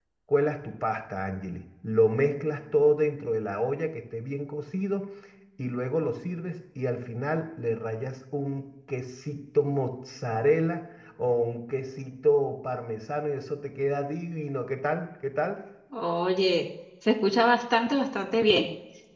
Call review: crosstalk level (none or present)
none